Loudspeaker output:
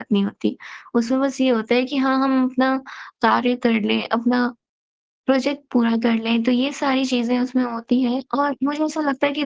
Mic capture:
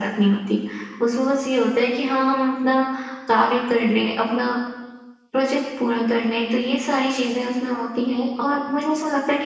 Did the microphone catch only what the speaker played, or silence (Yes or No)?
Yes